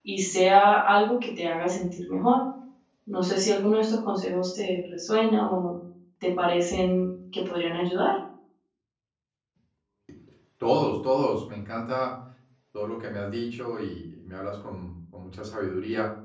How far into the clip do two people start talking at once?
none

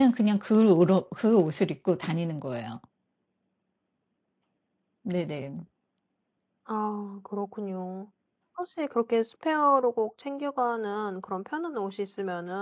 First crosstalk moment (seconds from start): none

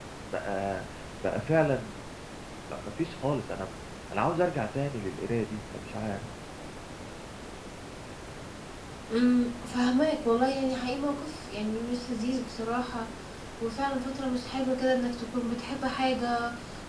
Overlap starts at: none

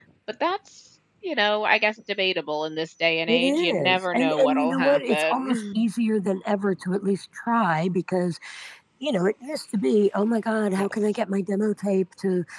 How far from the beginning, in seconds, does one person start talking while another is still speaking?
3.3 s

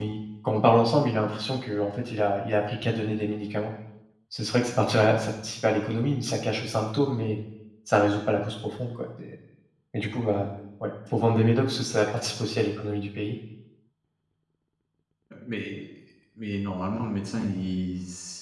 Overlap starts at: none

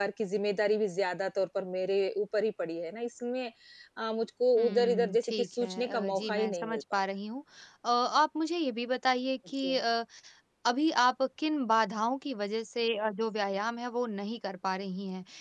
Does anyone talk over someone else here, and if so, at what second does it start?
4.6 s

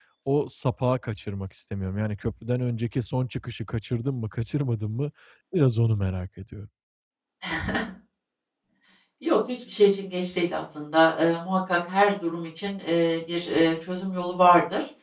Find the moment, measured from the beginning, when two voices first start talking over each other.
none

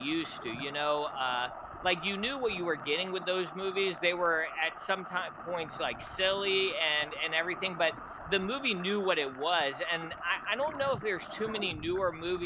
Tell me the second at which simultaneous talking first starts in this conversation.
none

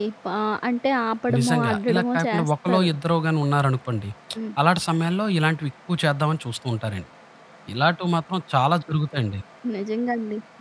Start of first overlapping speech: 1.3 s

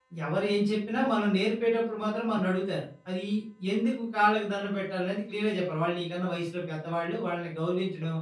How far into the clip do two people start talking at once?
none

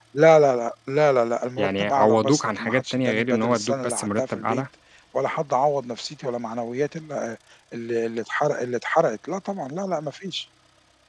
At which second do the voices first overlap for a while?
1.6 s

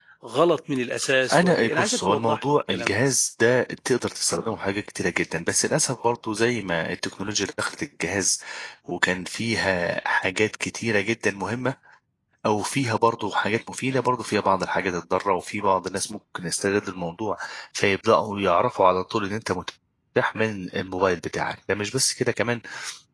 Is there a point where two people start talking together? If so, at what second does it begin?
1.3 s

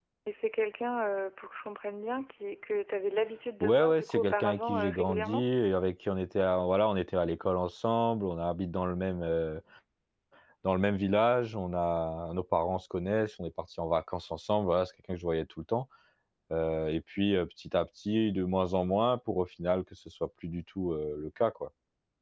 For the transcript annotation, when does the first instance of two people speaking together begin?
3.6 s

